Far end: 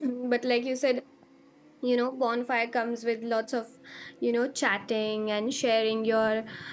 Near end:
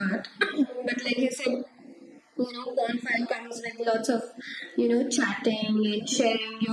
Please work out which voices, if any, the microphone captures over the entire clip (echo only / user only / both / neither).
echo only